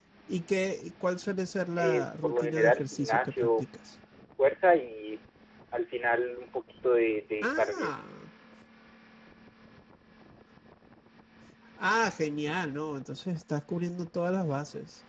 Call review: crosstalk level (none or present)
present